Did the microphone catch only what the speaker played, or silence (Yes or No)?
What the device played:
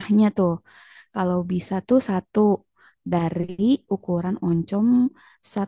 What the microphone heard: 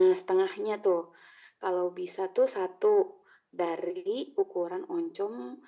Yes